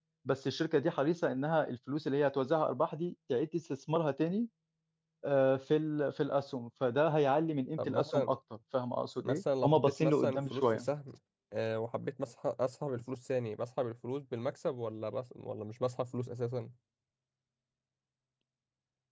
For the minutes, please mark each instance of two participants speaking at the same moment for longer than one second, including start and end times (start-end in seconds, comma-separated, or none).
9.2-10.9